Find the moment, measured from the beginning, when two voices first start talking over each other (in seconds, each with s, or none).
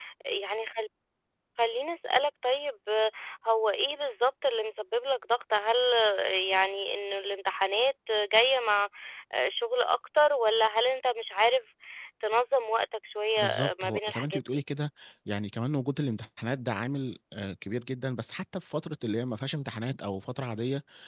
13.4 s